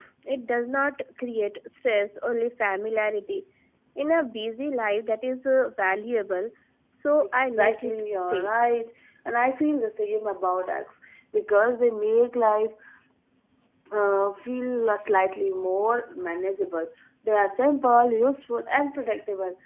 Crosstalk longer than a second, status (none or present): present